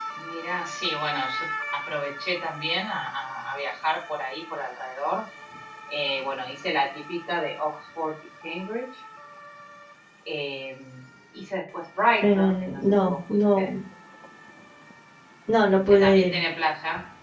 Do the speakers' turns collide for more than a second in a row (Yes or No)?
Yes